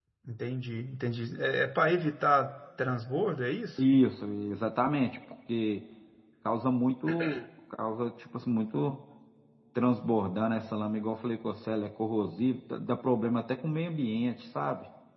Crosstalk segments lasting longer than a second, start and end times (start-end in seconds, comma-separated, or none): none